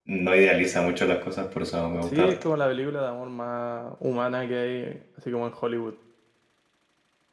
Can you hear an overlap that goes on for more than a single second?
No

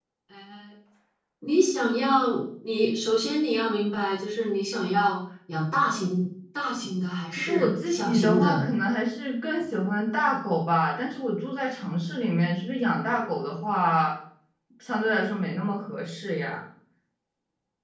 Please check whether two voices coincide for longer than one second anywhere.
Yes, from 7.3 s

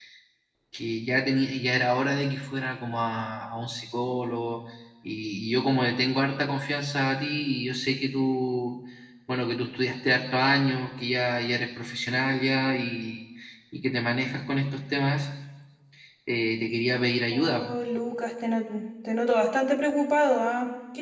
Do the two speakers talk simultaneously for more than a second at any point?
No

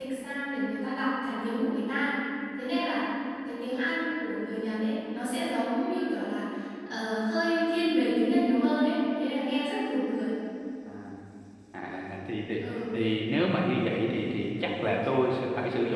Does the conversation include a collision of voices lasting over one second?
No

